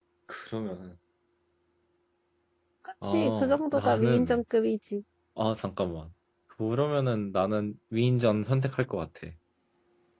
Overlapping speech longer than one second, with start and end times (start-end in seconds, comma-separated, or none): 3.0-4.4